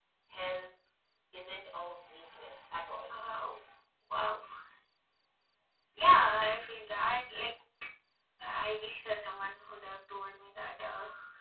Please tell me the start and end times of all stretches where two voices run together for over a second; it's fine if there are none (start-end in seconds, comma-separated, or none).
none